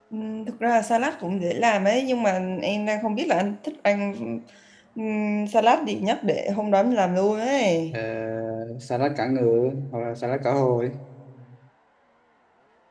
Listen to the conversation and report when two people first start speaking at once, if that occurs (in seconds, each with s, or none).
none